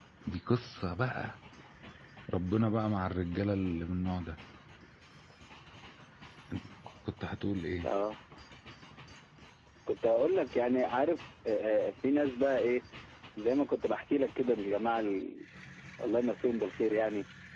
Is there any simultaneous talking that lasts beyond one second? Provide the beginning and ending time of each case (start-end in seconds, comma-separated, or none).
none